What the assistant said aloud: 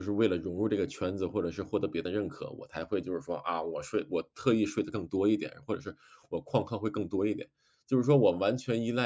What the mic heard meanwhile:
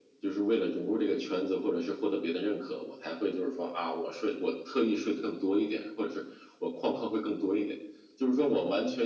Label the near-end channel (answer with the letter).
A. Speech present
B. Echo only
B